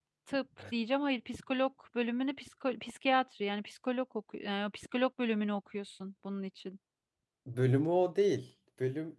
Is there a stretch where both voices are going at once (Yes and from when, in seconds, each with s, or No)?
No